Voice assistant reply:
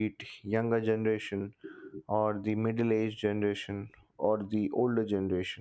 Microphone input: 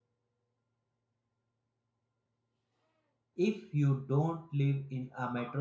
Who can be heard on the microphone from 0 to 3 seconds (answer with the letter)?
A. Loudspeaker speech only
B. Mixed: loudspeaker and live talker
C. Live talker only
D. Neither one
D